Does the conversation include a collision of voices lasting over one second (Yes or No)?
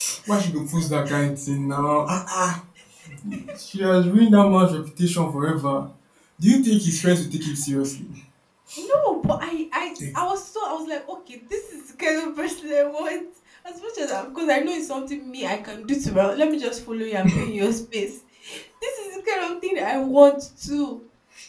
No